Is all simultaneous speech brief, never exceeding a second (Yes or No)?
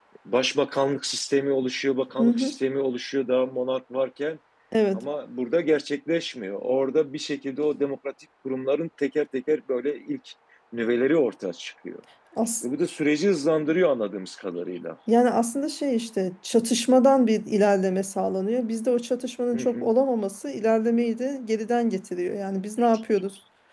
Yes